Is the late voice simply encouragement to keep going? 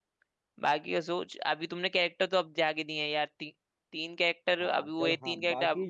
No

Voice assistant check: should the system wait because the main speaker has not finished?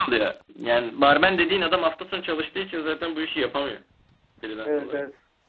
No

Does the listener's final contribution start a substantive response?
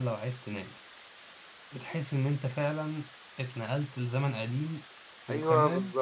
Yes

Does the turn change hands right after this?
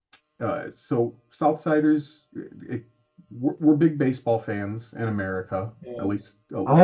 Yes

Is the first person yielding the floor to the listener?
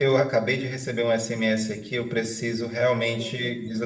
No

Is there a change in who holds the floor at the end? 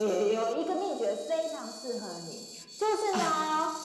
No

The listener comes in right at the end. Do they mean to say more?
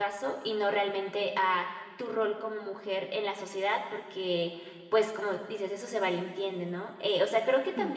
No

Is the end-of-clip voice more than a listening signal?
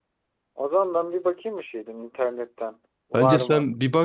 Yes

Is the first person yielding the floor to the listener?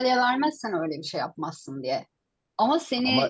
No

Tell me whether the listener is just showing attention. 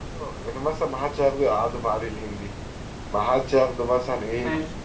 Yes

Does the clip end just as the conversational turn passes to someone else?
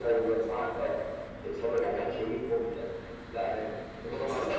Yes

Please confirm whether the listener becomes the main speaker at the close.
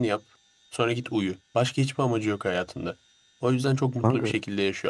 No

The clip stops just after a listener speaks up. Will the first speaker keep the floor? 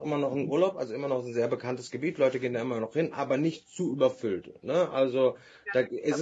No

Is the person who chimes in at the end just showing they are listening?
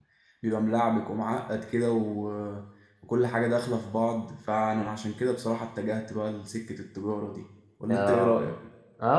No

